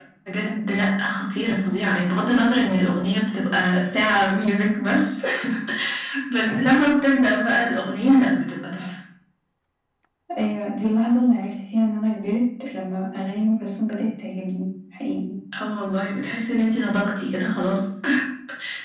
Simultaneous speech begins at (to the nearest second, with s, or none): none